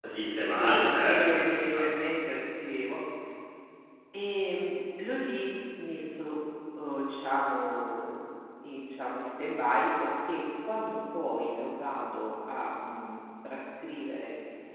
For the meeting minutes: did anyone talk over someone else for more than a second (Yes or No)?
Yes